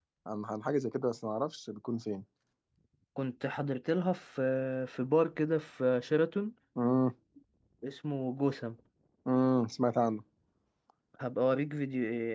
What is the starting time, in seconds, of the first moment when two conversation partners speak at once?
none

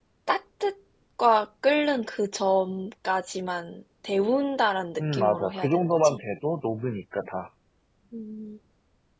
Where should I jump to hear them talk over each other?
5 s

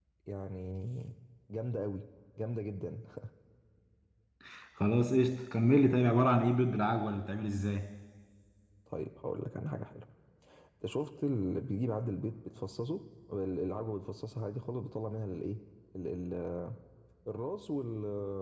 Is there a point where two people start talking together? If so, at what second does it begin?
none

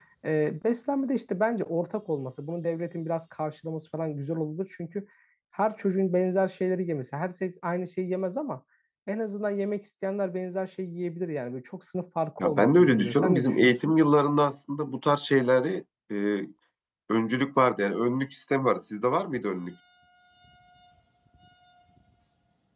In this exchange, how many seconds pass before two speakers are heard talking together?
12 s

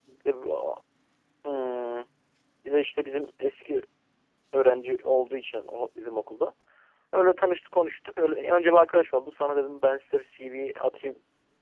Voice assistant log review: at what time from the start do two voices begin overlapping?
none

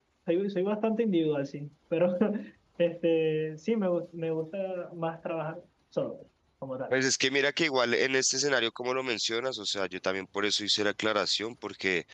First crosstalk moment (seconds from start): none

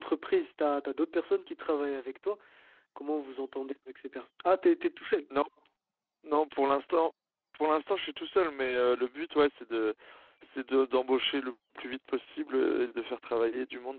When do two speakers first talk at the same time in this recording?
none

